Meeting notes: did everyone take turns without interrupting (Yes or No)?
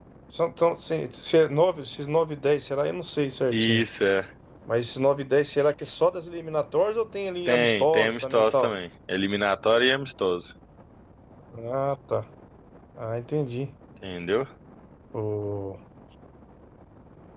No